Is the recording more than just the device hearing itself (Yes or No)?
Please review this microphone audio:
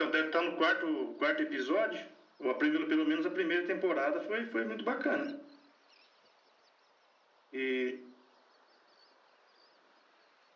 No